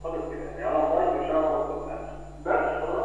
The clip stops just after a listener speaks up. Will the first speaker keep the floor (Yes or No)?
No